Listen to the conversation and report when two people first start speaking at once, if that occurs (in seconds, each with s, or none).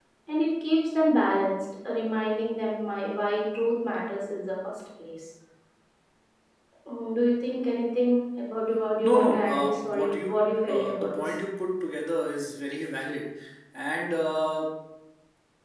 9.0 s